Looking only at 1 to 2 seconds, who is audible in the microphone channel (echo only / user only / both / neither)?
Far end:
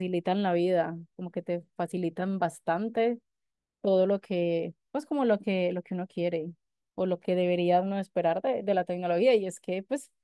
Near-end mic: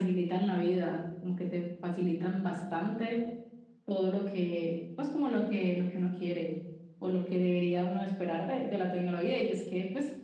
echo only